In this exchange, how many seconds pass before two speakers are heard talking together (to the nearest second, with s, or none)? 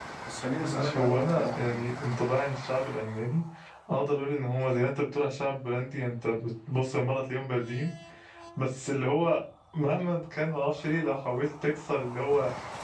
1 s